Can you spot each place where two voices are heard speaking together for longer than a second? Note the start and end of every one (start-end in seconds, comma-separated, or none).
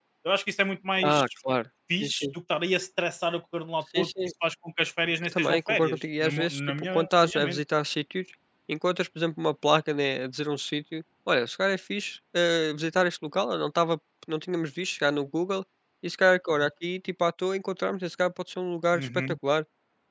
5.3-7.6